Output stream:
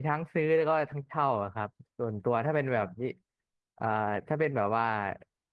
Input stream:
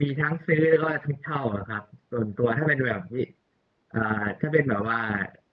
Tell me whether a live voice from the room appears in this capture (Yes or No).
No